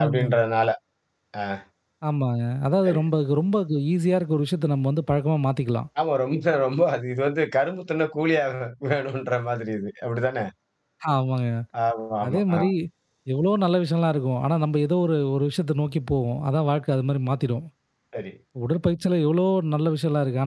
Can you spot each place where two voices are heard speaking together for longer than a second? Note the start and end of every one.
none

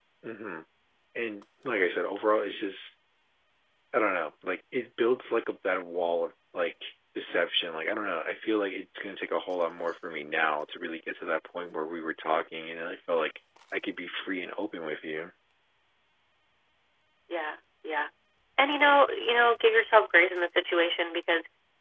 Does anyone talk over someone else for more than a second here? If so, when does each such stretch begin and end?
none

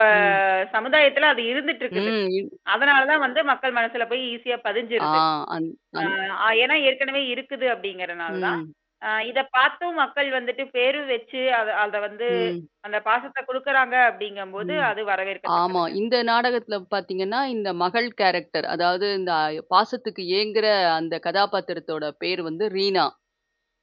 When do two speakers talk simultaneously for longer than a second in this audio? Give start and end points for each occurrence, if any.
none

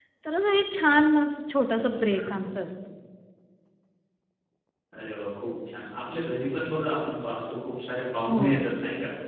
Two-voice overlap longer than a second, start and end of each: none

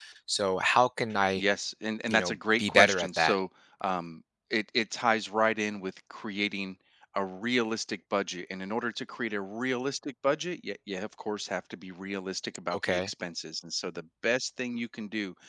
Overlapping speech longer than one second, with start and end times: 2.1-3.4

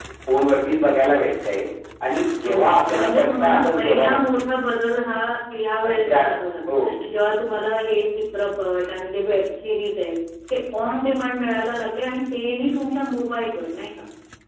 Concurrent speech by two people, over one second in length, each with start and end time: 2.4-4.4

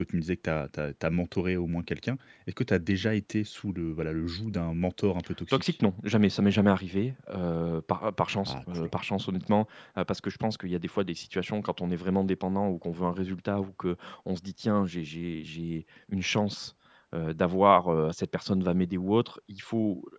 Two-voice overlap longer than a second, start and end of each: none

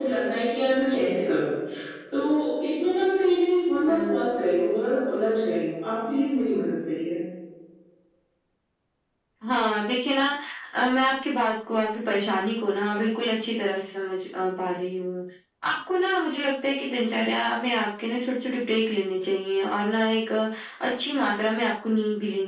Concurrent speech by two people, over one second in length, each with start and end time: none

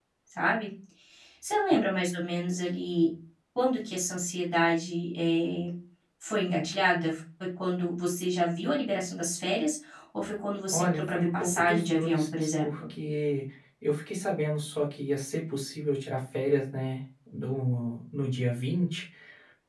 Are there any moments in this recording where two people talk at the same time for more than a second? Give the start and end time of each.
10.7-12.7

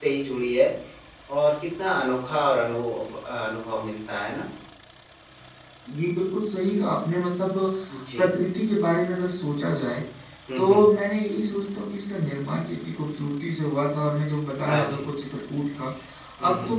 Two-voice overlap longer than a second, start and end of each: none

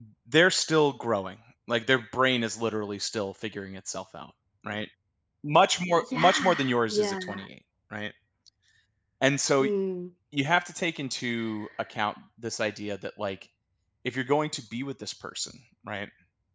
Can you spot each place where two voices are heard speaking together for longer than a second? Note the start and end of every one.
5.9-7.4

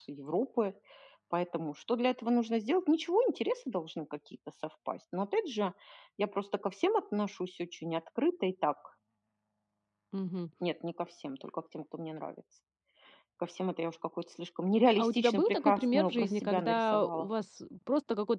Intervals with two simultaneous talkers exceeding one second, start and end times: 15.0-17.3

